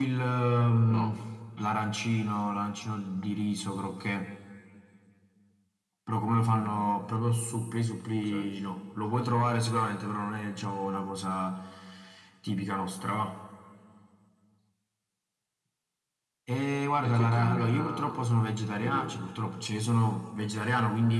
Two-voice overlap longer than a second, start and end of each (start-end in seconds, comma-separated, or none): 17.0-18.3